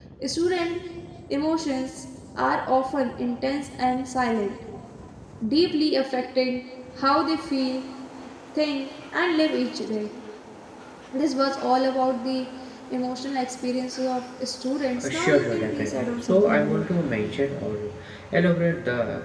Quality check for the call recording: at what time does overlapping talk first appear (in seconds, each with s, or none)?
15.0 s